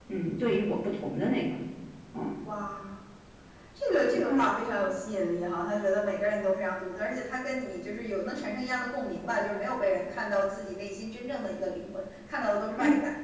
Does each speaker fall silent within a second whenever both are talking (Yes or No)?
Yes